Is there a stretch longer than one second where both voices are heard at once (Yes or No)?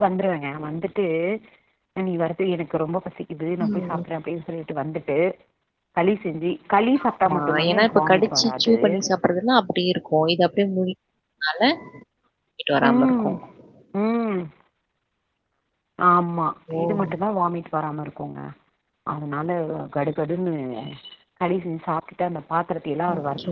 Yes